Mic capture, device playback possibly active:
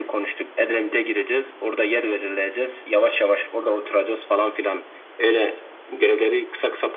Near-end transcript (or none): none